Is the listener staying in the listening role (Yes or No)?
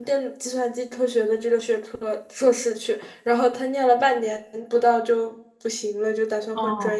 Yes